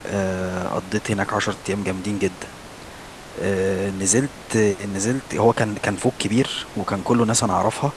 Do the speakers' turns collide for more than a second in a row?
No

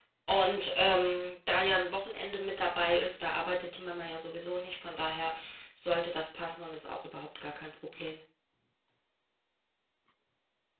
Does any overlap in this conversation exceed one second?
No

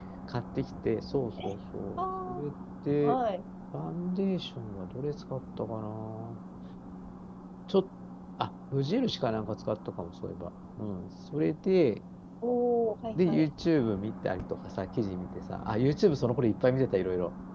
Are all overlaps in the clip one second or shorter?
Yes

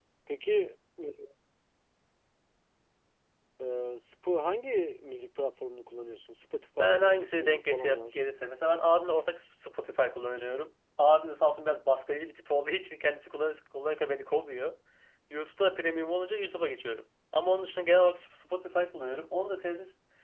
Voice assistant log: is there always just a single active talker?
No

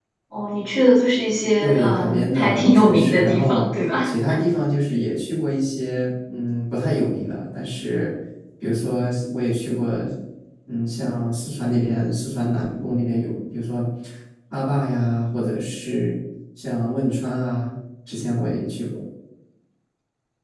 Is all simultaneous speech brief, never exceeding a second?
No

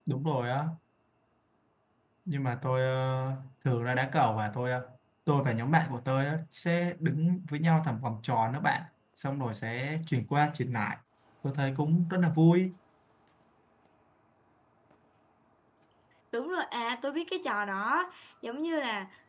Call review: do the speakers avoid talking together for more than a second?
Yes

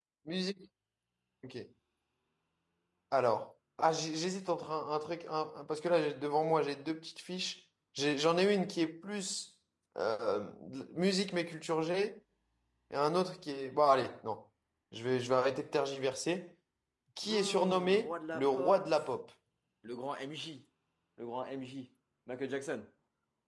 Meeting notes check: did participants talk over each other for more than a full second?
Yes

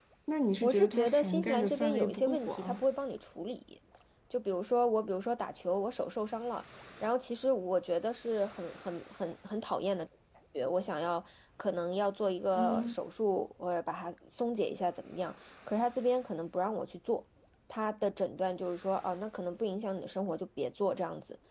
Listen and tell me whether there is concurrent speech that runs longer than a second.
Yes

